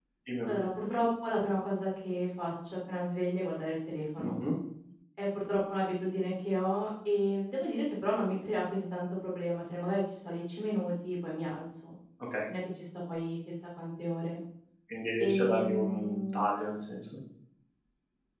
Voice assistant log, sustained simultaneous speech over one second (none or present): present